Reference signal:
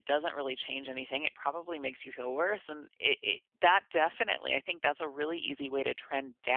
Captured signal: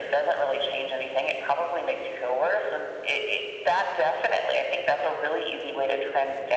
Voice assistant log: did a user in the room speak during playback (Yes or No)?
No